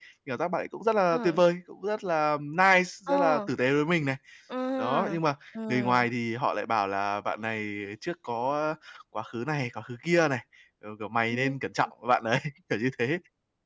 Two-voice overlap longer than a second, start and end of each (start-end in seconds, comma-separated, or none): none